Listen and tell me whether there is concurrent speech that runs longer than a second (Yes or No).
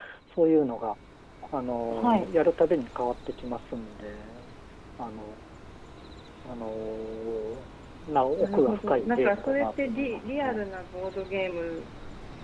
Yes